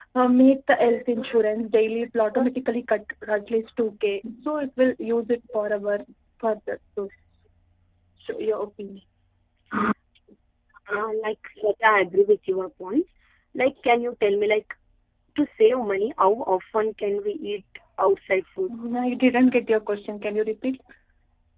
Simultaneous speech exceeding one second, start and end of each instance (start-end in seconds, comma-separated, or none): none